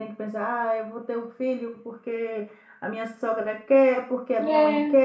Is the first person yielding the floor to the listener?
No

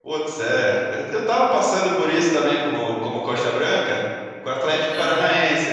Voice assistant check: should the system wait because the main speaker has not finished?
Yes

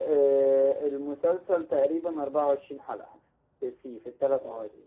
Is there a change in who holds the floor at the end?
Yes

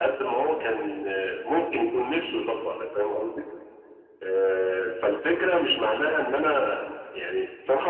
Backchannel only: No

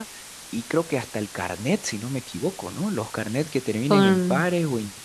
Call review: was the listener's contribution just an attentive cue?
Yes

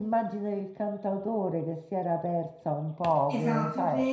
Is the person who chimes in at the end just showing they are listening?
No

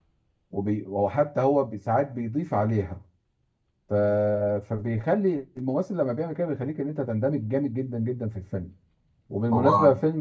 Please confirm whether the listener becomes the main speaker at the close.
No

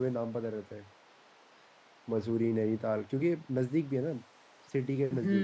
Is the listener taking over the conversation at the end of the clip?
Yes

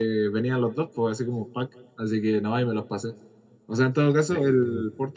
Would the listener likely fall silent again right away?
Yes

